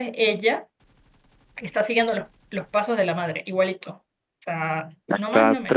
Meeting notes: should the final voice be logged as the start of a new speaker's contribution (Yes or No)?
Yes